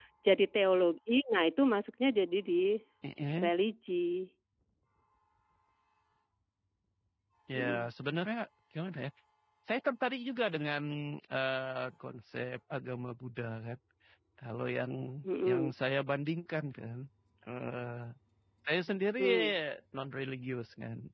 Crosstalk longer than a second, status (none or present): none